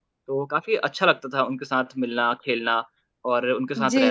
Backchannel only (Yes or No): No